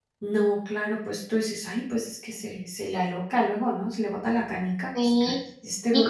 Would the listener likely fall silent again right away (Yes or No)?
No